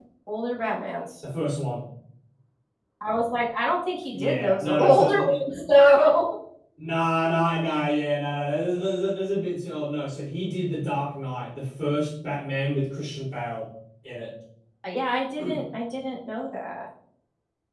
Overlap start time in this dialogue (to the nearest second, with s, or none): 4 s